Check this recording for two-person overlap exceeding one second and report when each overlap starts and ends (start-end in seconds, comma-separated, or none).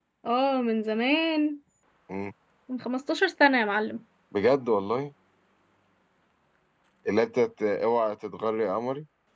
none